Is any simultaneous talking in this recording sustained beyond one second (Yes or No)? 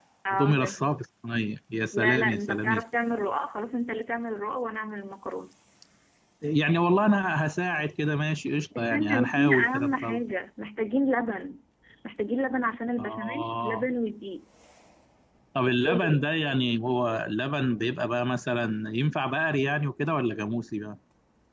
Yes